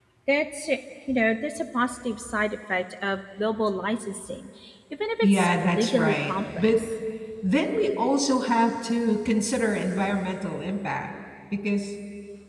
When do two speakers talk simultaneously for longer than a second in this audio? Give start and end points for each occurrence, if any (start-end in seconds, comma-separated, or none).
5.2-6.8